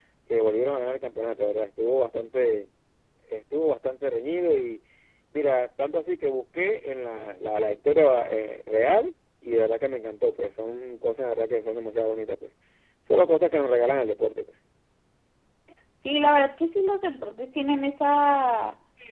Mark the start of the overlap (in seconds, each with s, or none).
none